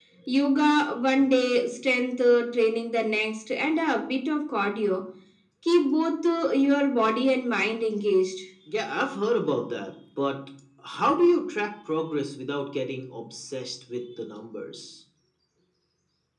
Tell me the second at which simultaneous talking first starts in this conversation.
none

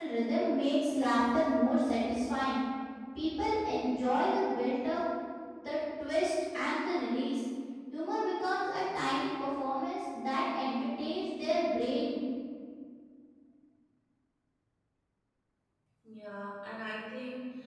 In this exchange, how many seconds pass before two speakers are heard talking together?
none

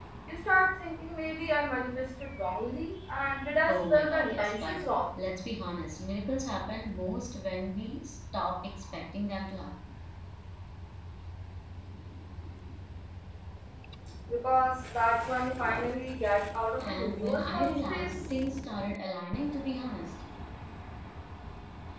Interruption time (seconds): 3.7 s

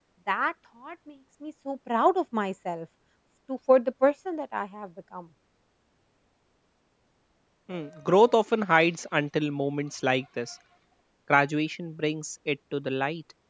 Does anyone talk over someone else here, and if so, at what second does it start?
none

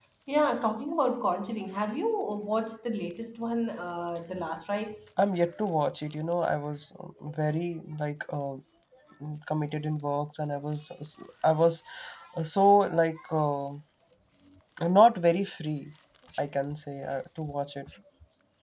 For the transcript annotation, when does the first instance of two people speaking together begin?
none

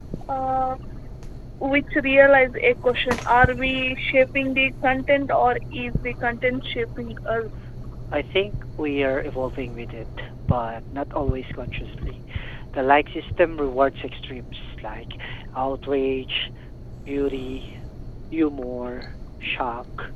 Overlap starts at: none

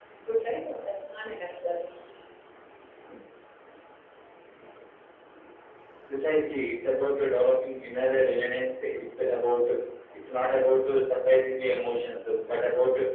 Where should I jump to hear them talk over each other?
none

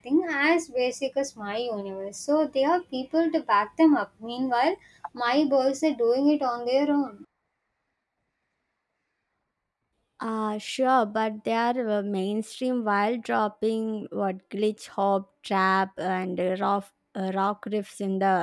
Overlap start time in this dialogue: none

